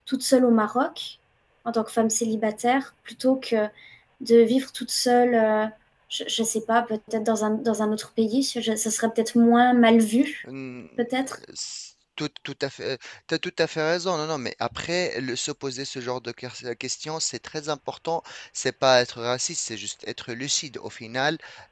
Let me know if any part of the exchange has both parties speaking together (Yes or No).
No